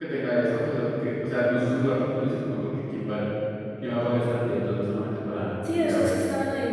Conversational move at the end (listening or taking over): taking over